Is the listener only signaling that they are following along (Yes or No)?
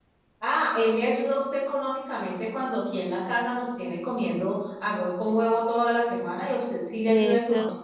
No